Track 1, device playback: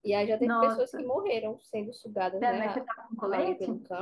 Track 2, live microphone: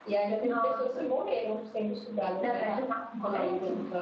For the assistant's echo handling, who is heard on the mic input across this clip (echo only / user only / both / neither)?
echo only